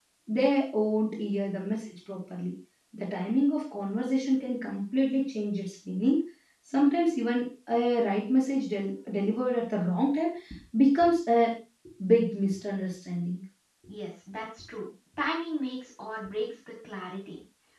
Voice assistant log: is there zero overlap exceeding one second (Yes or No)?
Yes